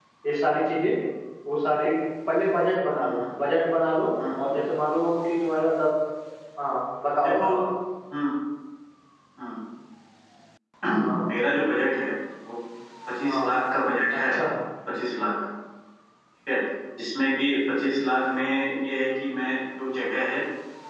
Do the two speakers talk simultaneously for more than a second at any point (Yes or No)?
No